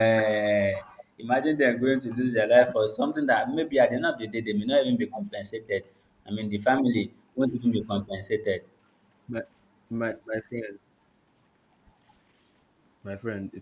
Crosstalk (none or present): none